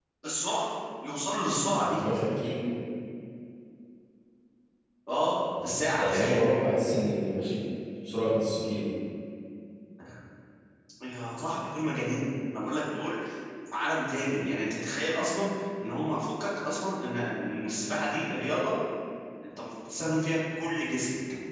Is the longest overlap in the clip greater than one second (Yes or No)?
No